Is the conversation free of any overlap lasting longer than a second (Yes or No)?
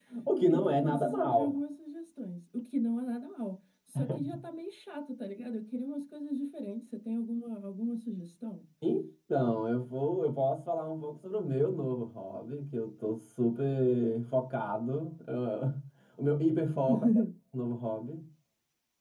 No